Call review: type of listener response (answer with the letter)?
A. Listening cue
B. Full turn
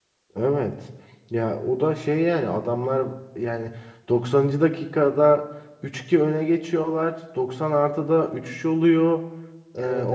A